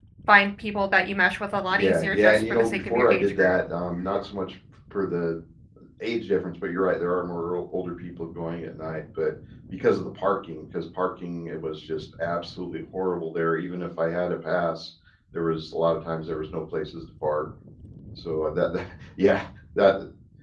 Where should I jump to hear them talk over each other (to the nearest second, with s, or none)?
2 s